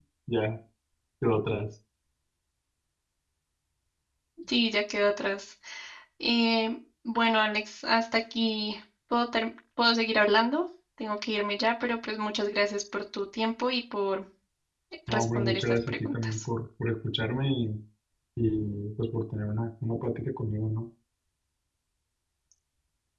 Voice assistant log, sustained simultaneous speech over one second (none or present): present